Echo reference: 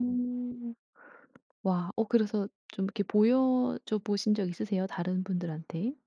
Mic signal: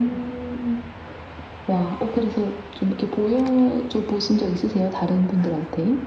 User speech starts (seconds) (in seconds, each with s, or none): none